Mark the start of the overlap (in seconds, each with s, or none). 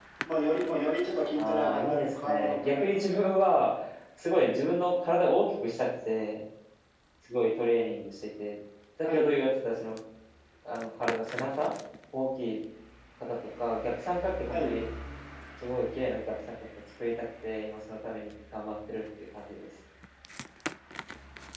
1.4 s